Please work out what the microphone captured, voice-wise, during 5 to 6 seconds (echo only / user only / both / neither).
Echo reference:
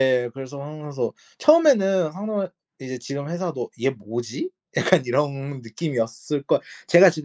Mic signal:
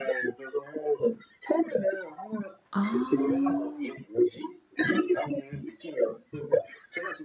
echo only